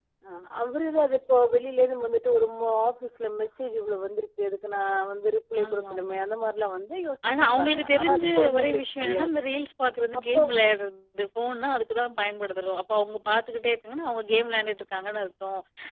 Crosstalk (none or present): present